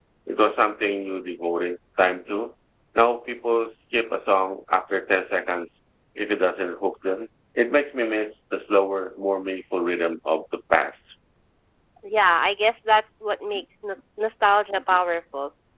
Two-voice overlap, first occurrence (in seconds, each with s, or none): none